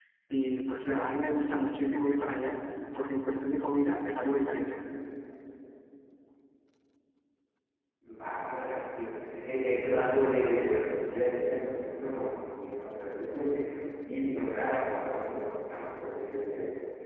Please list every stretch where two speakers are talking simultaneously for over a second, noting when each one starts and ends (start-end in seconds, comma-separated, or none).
none